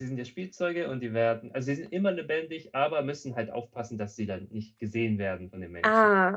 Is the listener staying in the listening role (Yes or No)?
No